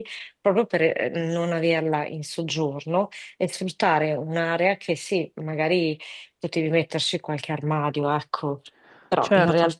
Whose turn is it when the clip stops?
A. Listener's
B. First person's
B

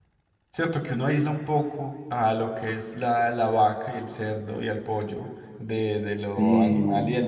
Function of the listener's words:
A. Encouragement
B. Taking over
A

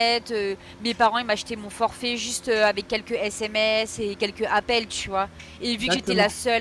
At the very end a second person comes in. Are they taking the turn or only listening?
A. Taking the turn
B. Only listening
B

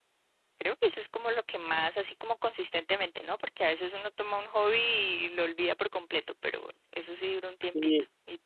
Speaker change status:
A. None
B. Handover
B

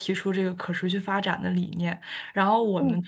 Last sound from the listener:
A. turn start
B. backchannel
B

